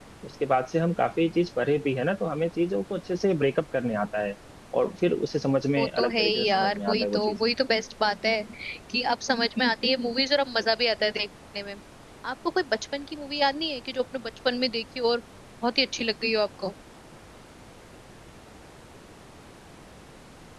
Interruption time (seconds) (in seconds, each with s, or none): 5.8 s